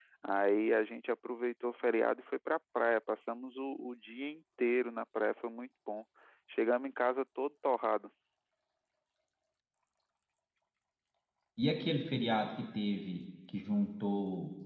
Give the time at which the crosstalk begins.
none

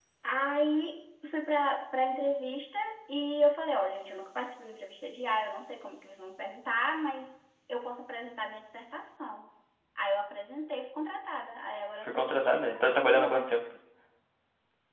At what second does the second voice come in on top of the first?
12 s

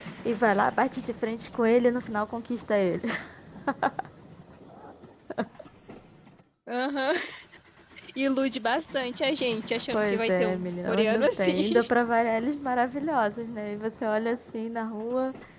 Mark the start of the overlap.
10 s

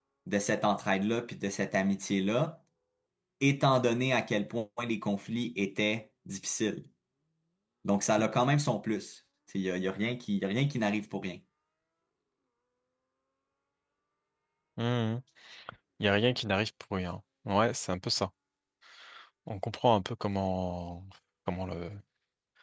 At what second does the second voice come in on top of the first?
none

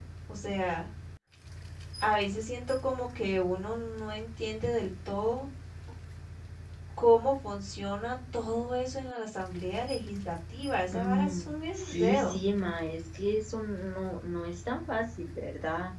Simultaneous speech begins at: 11 s

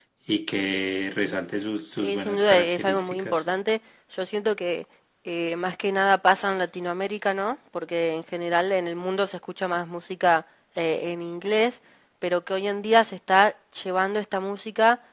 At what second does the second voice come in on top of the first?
2 s

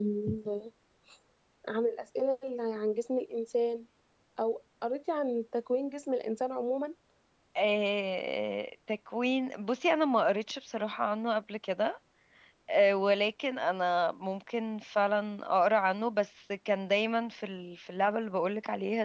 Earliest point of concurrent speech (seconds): none

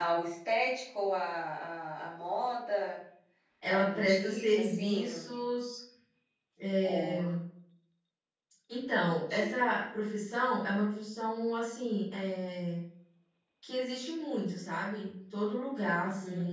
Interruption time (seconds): 4 s

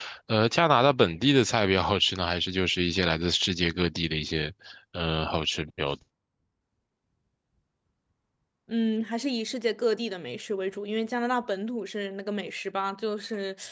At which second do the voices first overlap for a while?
none

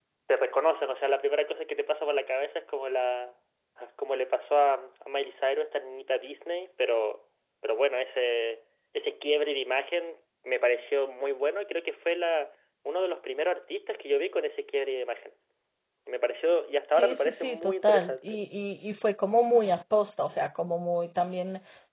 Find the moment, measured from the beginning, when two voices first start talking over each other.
17 s

